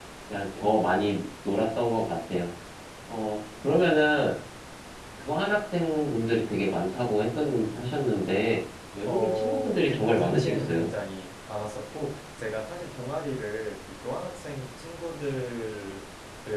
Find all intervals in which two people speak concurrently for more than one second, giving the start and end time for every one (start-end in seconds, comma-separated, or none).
9.1-10.9